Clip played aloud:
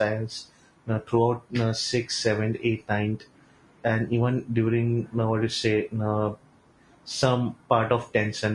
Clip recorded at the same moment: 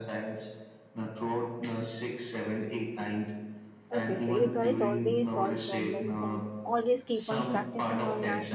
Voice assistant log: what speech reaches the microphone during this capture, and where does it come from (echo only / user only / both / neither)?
both